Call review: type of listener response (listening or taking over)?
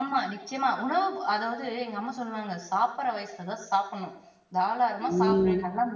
listening